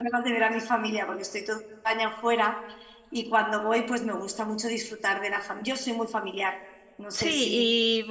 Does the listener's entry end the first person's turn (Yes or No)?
Yes